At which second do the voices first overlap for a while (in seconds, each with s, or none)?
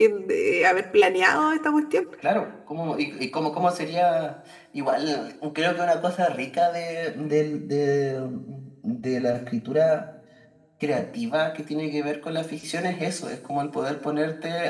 none